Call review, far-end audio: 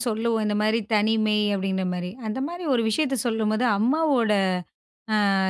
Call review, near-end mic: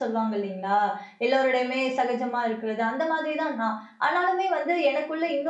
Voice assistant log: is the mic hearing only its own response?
No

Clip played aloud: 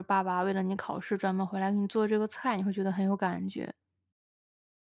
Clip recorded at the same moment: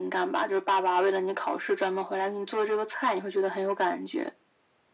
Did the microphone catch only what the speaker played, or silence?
Yes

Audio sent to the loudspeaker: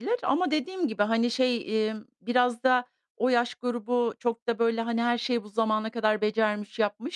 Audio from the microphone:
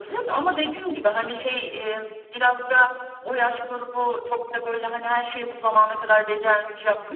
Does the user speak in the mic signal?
No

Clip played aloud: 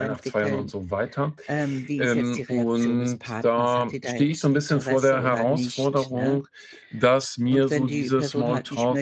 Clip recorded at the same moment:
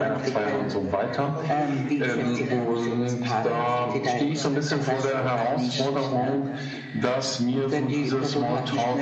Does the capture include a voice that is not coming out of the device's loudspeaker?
Yes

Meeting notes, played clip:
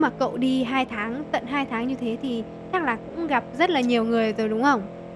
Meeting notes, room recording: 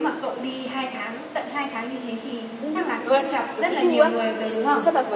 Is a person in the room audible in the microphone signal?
Yes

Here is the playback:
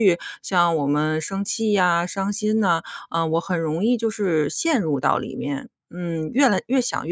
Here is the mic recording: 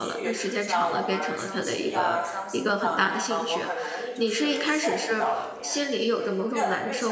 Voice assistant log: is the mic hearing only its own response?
No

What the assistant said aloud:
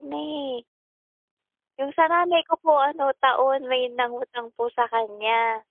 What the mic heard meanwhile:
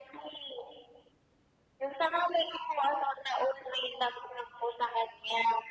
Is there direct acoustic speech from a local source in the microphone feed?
No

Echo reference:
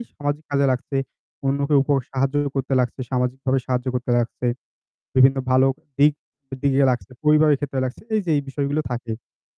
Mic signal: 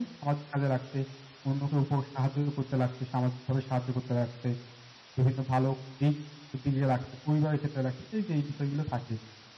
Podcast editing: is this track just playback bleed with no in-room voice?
Yes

